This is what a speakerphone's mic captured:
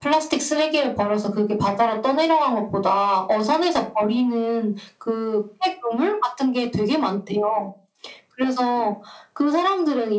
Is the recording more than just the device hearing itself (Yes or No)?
No